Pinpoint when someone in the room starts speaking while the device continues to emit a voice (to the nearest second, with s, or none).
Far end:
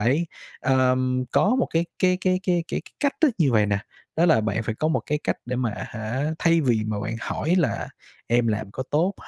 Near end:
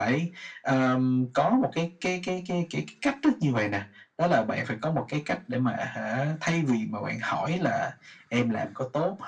none